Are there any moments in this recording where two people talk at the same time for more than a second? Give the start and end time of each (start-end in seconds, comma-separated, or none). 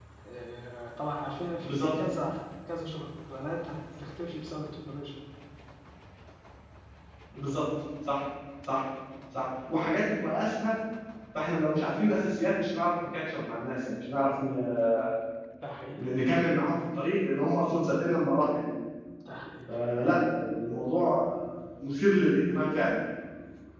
none